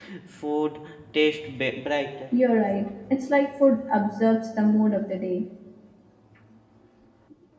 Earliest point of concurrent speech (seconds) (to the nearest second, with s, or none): none